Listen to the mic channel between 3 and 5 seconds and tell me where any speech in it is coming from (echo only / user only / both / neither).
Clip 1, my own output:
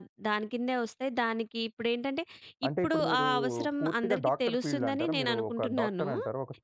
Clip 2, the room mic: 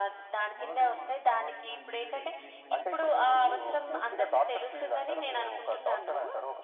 both